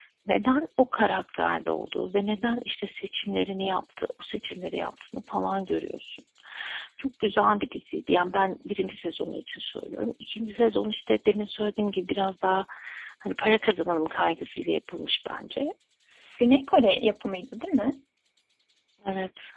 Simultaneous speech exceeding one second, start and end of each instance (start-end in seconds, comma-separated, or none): none